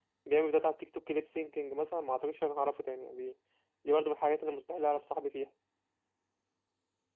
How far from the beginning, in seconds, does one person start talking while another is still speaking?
none

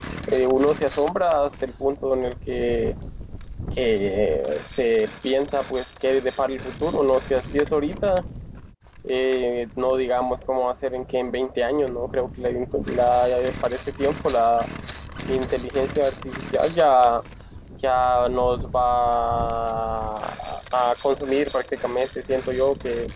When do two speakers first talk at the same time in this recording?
none

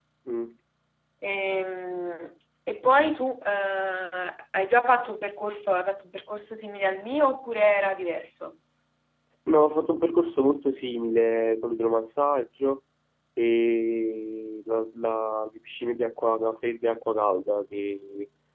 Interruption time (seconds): none

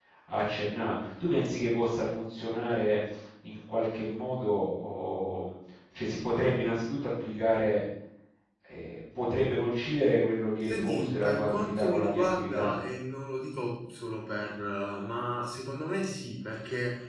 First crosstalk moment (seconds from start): 10.6 s

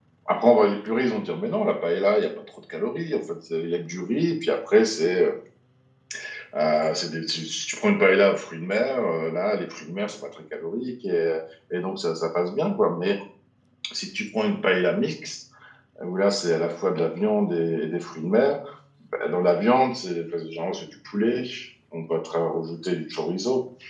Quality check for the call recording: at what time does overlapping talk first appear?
none

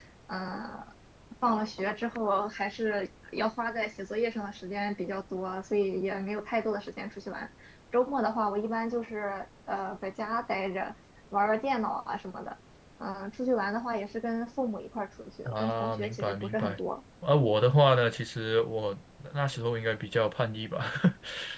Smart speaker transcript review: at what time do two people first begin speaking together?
15.4 s

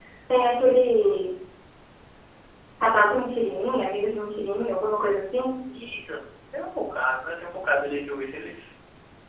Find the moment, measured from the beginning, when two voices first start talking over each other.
none

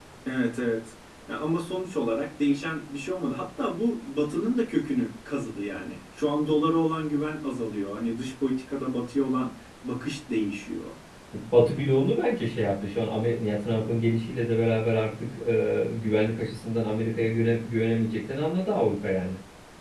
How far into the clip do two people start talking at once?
none

